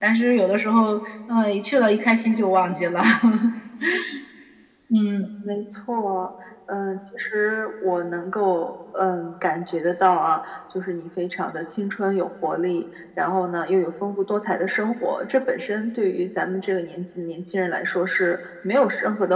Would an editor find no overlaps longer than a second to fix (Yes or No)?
Yes